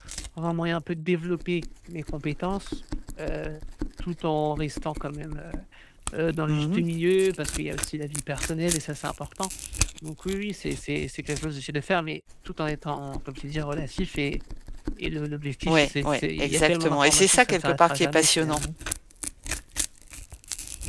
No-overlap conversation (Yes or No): No